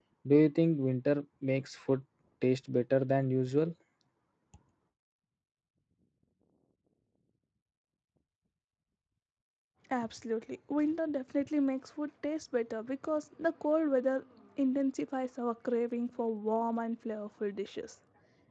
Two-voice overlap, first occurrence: none

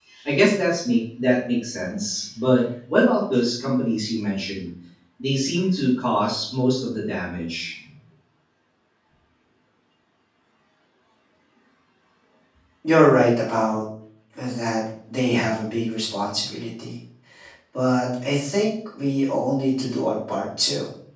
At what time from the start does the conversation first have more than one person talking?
none

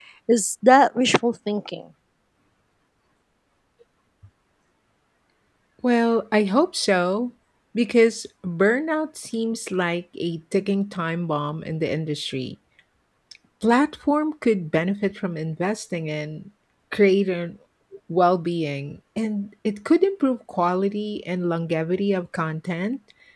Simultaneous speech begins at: none

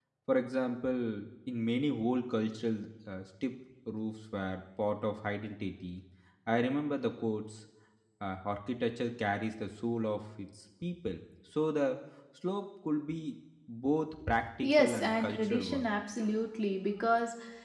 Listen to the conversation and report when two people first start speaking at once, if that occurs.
15 s

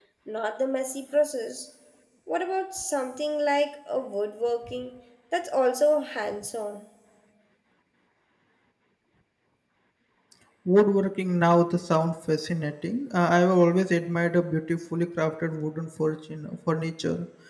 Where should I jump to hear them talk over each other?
none

